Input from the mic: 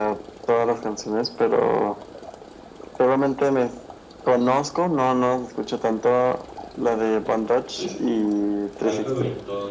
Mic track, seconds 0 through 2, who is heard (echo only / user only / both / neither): echo only